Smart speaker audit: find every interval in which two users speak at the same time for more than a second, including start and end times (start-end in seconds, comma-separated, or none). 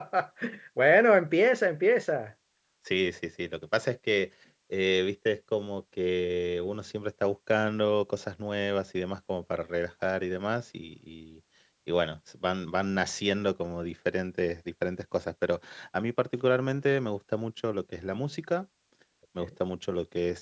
none